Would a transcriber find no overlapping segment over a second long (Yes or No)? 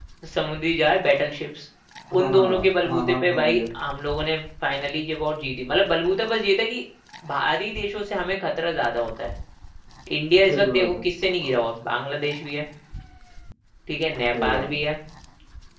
No